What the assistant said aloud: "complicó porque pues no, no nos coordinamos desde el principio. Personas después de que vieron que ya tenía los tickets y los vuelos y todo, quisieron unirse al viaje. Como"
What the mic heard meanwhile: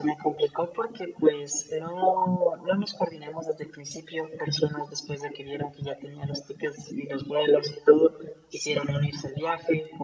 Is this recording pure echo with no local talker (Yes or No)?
Yes